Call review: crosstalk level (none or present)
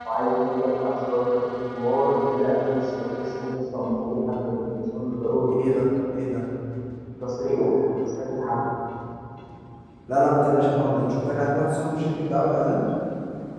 none